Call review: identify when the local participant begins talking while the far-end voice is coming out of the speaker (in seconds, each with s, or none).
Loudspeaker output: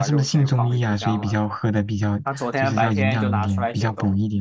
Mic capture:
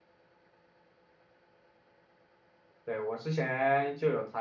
2.8 s